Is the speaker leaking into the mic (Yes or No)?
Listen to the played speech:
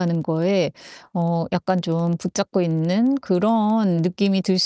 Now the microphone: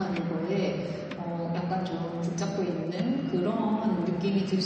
Yes